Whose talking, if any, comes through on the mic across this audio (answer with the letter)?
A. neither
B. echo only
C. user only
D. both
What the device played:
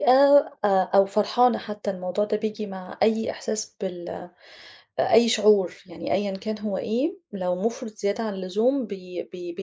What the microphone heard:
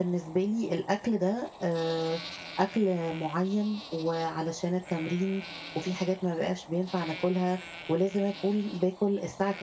C